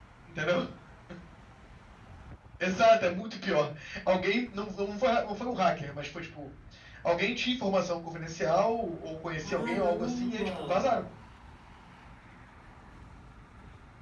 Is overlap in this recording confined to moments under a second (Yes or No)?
No